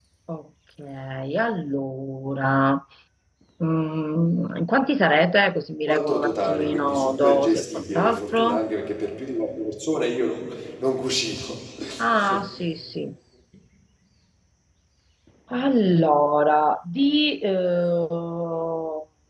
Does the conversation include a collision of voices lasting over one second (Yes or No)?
Yes